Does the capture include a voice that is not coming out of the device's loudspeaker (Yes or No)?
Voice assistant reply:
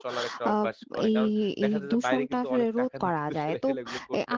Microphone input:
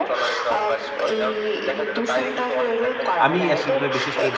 Yes